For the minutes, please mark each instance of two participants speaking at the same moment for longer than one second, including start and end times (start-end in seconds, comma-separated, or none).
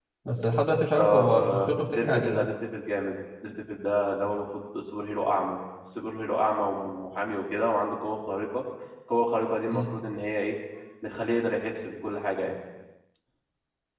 1.0-2.4